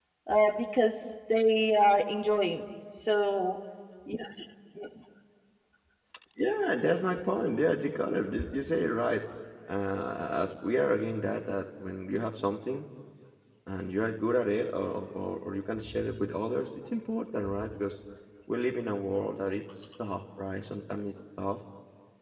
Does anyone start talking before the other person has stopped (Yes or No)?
No